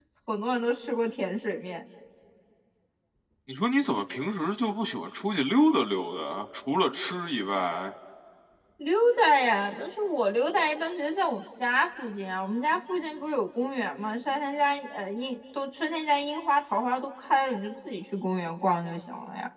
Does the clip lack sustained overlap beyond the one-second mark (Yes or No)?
Yes